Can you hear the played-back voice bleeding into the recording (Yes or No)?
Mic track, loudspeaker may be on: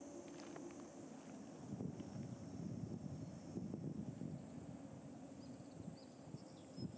No